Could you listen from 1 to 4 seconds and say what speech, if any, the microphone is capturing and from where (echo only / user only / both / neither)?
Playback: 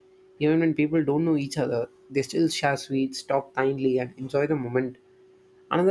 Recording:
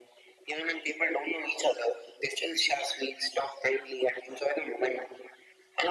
echo only